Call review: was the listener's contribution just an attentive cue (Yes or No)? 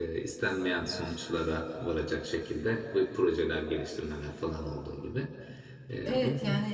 No